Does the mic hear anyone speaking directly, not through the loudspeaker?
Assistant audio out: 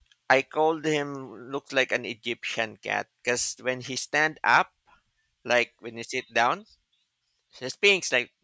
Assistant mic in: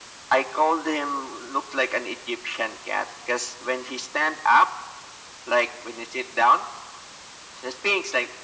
No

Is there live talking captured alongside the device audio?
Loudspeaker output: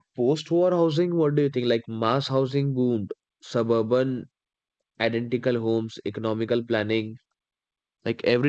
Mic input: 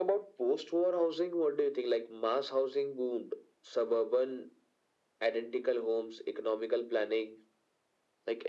No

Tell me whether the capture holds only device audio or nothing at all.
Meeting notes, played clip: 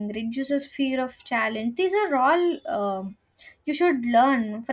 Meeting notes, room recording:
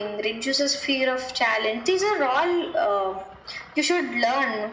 Yes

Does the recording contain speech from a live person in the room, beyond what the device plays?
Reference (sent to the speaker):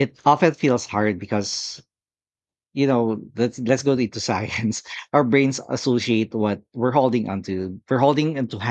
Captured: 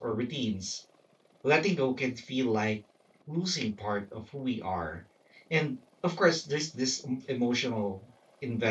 Yes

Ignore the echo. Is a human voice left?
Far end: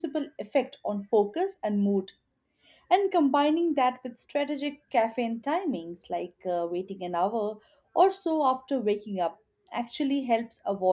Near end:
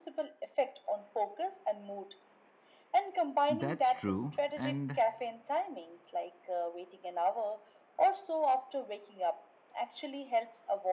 Yes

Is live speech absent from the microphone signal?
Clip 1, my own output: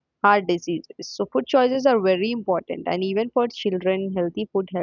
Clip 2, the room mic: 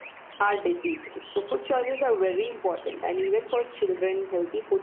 Yes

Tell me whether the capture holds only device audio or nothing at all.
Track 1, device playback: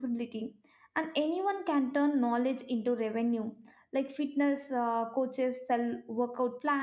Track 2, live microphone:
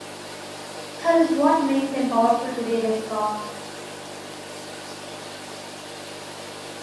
No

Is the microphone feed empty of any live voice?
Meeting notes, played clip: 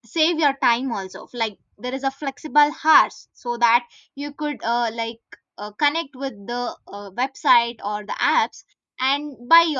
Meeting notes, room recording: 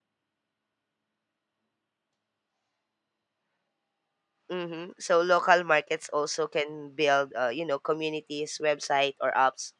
No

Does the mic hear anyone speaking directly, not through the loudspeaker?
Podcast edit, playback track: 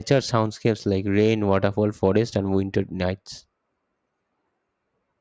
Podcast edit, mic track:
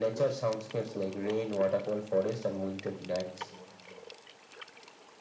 No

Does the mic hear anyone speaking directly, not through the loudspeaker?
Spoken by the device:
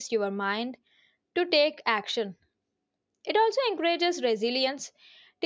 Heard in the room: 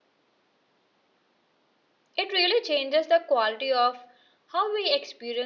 Yes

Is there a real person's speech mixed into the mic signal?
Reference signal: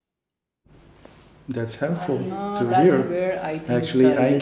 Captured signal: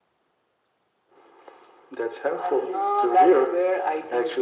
No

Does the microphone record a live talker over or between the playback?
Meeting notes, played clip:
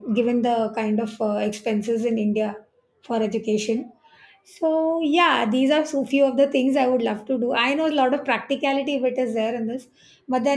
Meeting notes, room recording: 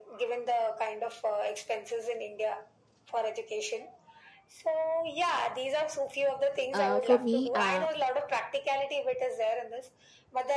Yes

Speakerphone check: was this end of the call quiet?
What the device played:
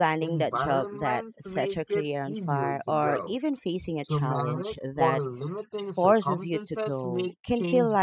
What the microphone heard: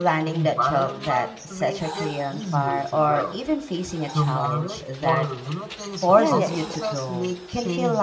No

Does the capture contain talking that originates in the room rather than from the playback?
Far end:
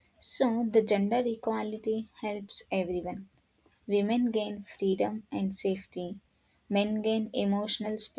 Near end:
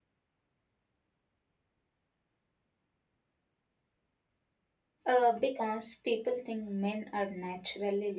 Yes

